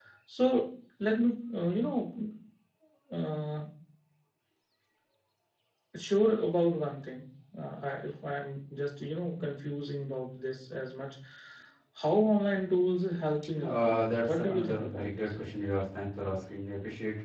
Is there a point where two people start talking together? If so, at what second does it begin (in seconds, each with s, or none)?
13.5 s